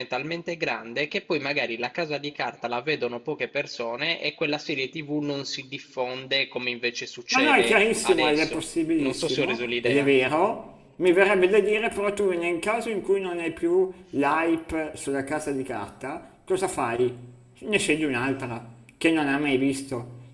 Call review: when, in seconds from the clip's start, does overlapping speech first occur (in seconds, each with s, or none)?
7.3 s